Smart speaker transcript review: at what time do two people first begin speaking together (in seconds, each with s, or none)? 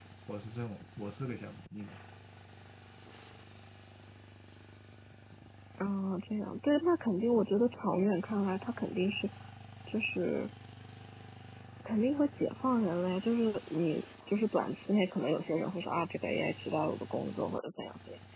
none